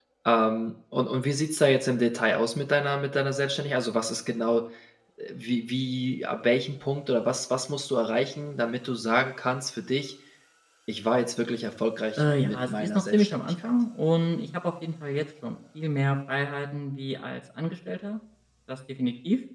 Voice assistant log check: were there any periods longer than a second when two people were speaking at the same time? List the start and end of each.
12.2-13.7

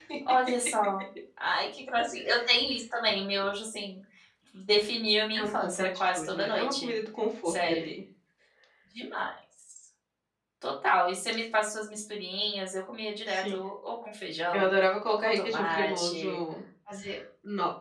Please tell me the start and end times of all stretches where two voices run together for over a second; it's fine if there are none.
5.4-7.0, 15.1-16.4

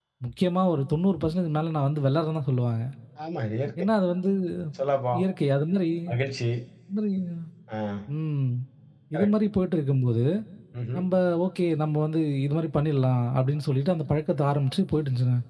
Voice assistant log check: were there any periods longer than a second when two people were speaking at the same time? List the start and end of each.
none

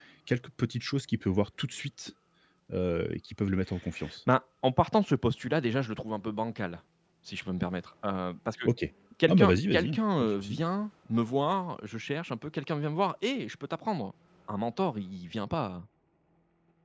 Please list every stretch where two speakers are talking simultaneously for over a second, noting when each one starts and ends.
9.3-10.6

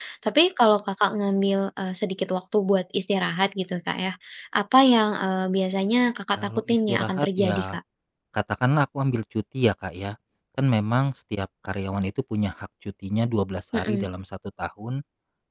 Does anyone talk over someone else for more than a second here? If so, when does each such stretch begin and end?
6.4-7.6

